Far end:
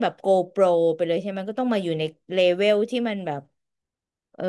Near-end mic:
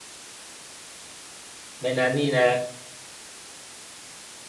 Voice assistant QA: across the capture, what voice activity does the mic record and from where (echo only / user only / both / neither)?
user only